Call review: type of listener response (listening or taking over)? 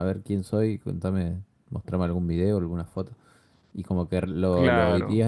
listening